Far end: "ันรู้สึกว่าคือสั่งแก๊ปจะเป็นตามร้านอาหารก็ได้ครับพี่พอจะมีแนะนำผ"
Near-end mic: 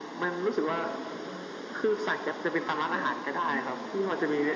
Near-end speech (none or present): present